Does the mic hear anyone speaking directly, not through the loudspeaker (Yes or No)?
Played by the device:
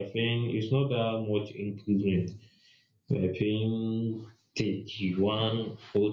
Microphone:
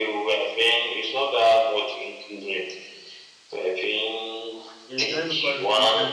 Yes